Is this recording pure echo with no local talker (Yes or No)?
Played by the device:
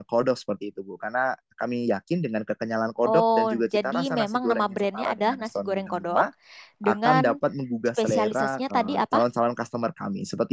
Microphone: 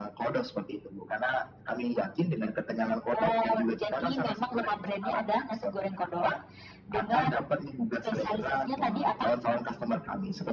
Yes